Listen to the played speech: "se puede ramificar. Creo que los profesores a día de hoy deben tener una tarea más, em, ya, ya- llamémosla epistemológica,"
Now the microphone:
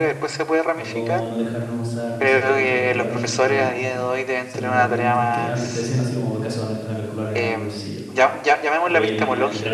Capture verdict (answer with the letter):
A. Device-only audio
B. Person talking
B